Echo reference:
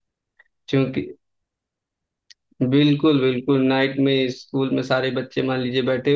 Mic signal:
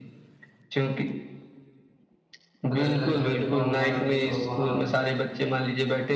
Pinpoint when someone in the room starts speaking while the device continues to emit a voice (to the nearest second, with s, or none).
3 s